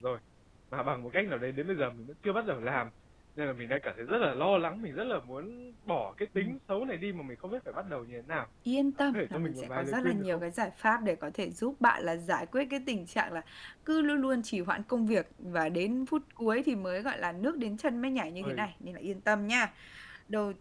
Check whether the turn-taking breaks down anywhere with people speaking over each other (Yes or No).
Yes